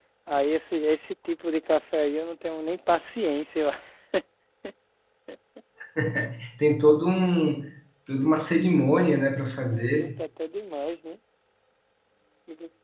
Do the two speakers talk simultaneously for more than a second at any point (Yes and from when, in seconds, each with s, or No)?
No